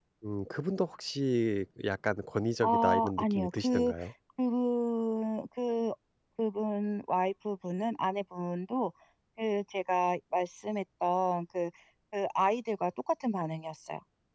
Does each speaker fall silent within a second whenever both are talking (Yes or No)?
No